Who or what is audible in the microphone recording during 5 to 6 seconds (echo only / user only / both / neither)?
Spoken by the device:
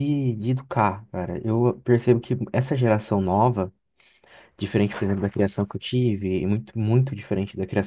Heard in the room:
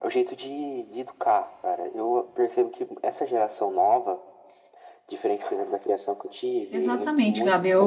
echo only